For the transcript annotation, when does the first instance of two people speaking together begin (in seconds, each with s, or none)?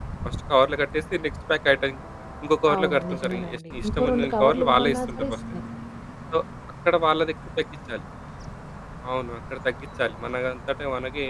2.7 s